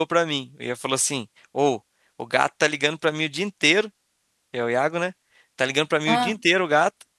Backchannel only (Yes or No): Yes